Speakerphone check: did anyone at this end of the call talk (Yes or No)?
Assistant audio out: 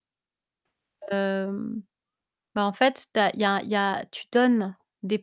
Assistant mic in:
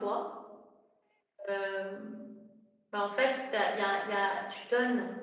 No